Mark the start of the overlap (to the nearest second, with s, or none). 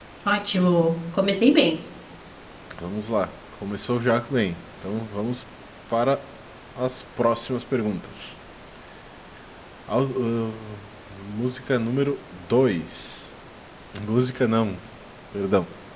none